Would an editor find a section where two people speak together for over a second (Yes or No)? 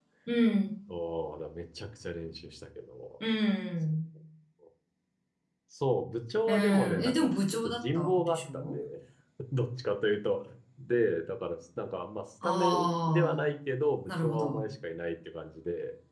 Yes